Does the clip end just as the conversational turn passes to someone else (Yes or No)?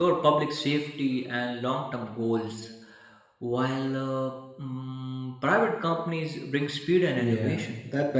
Yes